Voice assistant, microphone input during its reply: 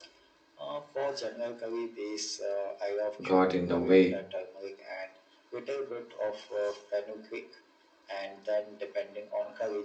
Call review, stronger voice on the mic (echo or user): user